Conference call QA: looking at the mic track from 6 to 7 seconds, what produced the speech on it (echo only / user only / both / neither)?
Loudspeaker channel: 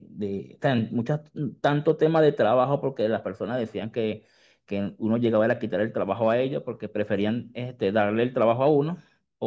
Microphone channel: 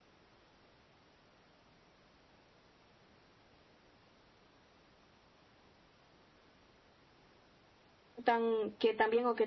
neither